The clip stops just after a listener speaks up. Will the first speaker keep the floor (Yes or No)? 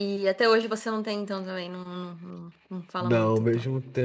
No